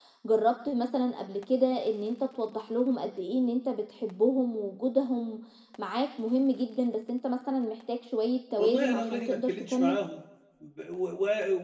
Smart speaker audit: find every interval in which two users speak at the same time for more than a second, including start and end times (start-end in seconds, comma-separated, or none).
8.6-10.0